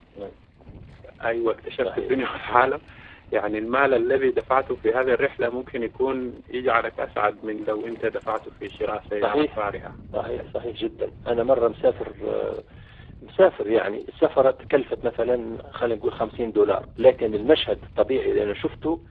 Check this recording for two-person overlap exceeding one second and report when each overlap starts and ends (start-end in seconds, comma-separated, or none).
none